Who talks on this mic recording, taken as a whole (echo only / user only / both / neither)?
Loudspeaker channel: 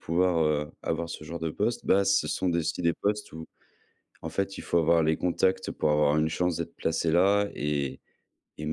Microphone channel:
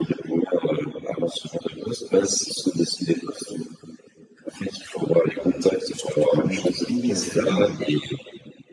both